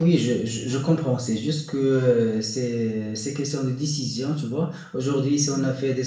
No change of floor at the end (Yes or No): Yes